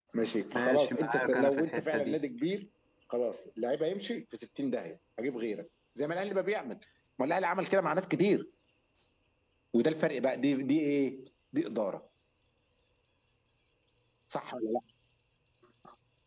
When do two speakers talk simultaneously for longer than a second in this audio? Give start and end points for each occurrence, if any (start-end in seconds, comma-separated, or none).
0.5-2.2